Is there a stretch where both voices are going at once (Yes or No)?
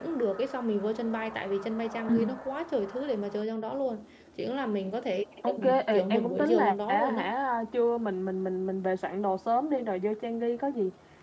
Yes